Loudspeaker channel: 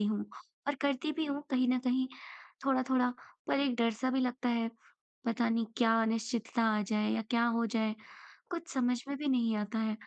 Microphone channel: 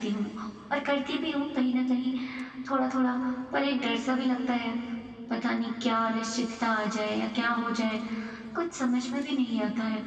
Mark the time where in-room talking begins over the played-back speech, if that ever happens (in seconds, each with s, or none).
none